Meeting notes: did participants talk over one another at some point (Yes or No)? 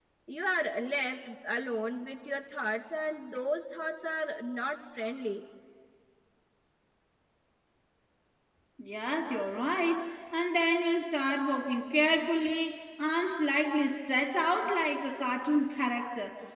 No